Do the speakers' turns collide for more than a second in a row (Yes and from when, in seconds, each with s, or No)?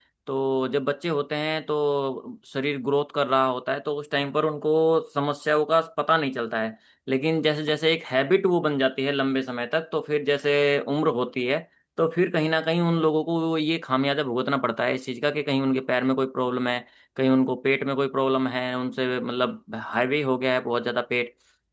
No